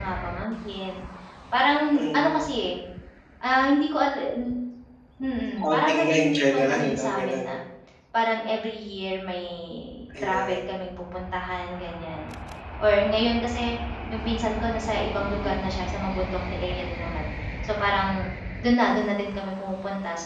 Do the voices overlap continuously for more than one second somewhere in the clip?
Yes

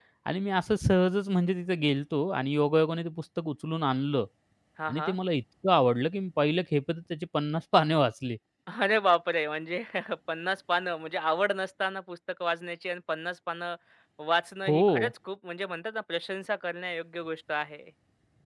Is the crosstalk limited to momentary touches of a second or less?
Yes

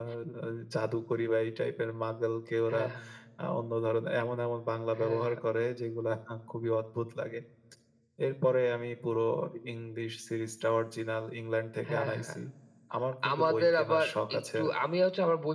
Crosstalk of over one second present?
Yes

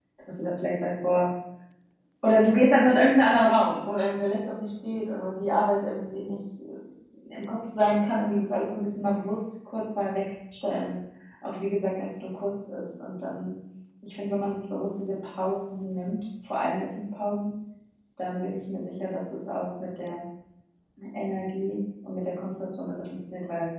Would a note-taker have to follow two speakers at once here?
No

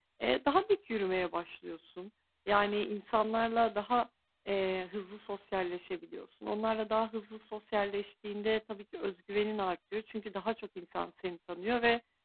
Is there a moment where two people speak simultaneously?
No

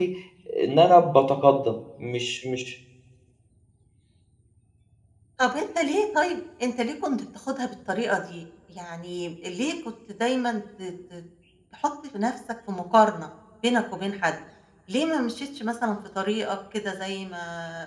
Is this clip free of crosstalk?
Yes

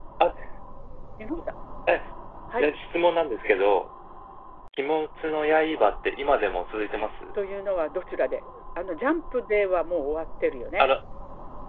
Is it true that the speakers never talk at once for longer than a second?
Yes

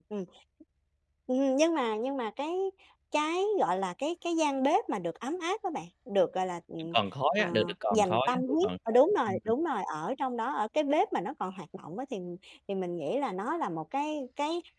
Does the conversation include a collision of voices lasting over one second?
Yes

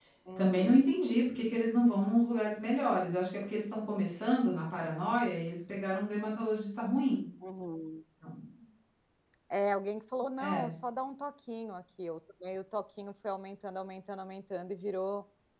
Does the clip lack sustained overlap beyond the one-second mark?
Yes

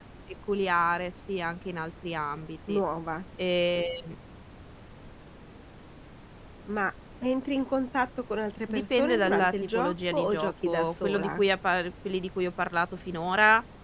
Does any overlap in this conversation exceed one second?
Yes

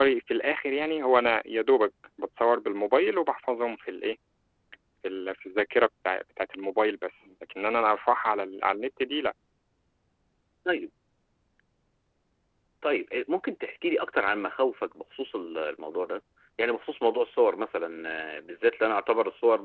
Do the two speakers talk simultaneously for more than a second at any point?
No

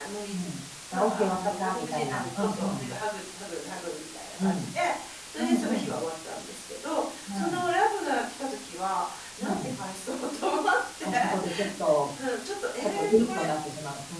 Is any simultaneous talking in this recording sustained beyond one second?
Yes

